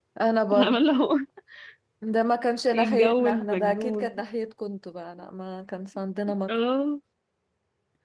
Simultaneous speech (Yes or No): Yes